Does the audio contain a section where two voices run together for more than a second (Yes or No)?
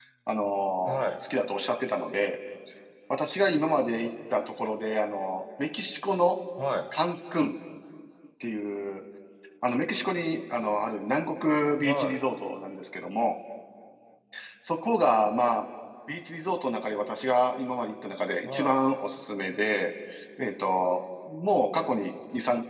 No